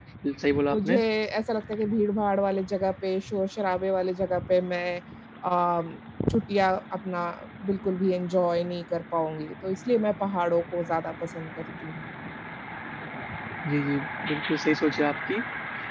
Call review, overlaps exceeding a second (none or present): none